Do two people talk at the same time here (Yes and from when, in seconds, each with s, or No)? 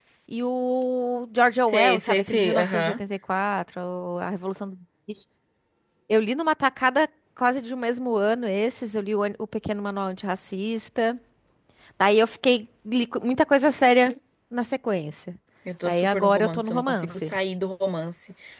Yes, from 1.7 s